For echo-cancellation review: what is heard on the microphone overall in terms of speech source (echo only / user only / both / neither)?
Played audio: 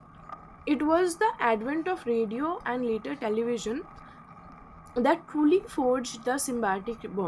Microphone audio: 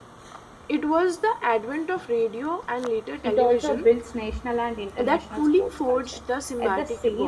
both